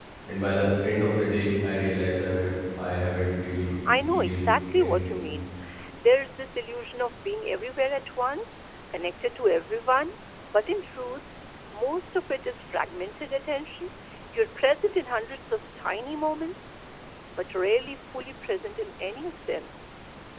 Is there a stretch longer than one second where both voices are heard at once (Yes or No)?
Yes